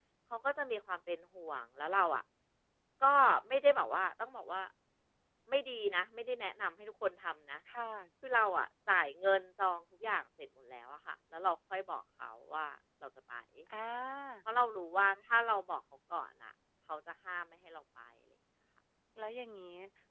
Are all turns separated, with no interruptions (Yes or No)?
Yes